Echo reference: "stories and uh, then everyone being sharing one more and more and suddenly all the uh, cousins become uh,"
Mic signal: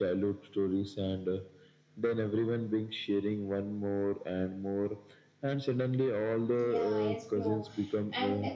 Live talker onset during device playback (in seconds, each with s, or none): 6.6 s